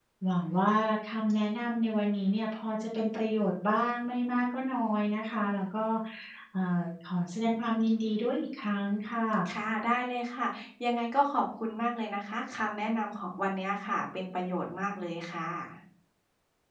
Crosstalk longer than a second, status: none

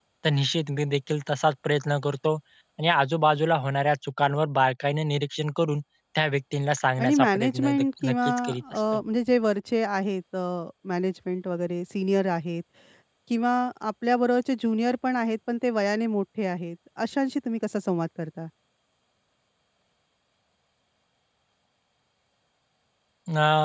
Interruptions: present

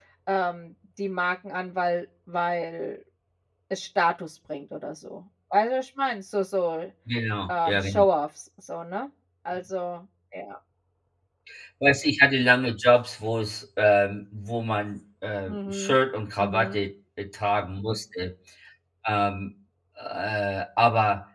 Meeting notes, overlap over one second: none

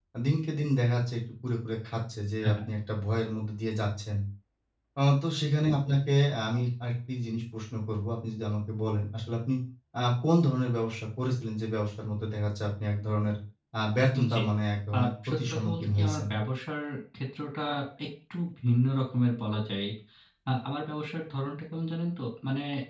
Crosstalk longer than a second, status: present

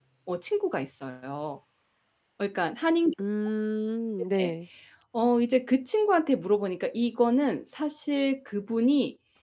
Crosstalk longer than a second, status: none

